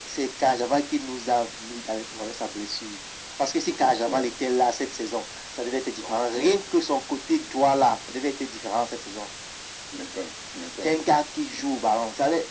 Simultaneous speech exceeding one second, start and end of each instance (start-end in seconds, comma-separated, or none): none